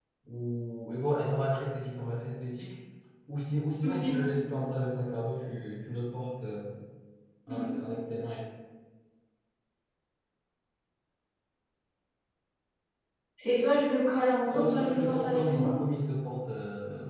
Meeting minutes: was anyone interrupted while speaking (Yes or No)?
Yes